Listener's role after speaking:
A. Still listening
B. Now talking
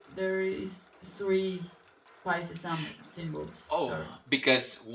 B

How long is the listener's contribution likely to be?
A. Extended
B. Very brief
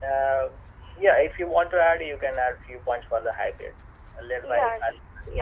A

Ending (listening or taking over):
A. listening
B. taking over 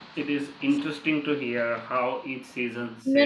B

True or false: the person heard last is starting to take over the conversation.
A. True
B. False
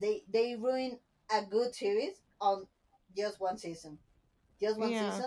B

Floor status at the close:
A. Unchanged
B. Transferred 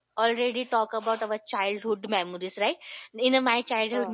A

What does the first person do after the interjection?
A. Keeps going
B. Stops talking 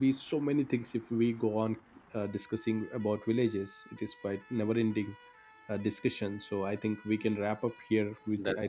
A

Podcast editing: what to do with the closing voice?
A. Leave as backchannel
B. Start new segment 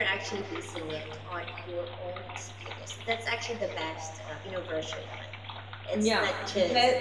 B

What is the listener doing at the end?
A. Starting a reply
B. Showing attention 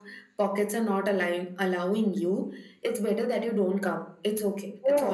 B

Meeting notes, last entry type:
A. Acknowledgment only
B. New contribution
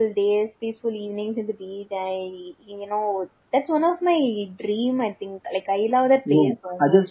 B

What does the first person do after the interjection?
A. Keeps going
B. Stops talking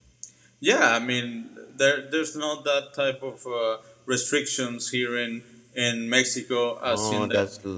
B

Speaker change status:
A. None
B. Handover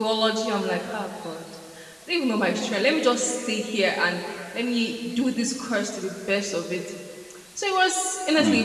A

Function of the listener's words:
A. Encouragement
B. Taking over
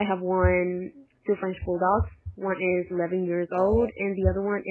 A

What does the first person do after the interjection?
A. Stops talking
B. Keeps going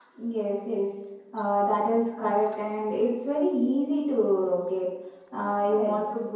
B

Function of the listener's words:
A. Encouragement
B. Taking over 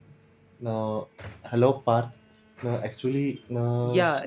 B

